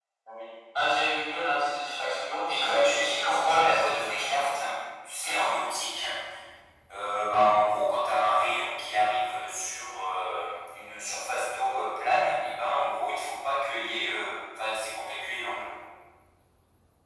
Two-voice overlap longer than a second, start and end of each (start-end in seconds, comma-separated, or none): 2.5-4.6